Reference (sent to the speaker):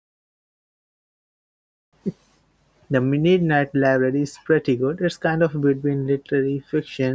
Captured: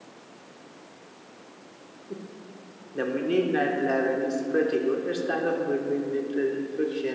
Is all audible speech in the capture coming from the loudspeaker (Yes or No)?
Yes